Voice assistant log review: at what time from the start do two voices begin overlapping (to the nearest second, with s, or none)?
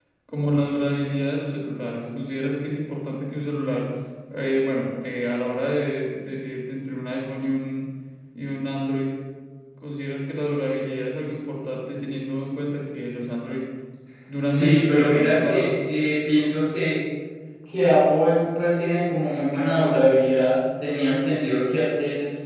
14 s